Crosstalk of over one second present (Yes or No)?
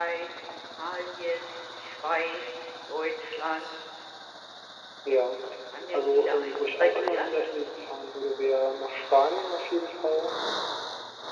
Yes